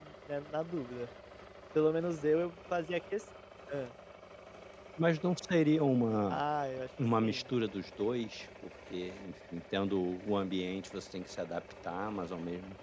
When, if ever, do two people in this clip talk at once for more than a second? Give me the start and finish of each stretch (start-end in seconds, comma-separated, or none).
none